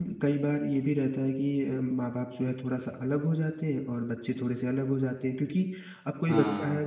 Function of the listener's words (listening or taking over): listening